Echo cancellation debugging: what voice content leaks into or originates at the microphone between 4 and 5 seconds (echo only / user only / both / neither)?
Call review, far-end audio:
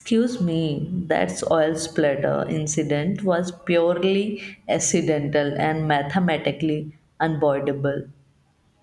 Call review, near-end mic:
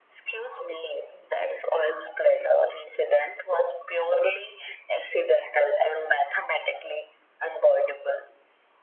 echo only